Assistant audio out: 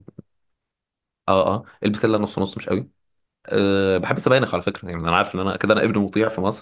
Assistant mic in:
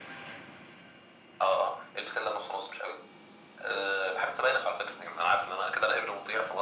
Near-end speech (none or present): none